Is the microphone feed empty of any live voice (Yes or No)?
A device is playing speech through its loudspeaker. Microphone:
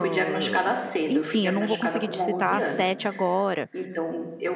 No